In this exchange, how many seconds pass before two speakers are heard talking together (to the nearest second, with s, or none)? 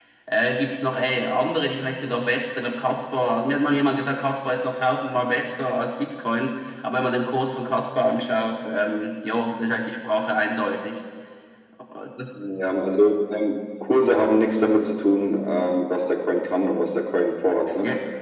none